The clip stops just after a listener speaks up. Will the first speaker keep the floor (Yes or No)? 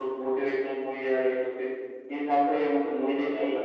Yes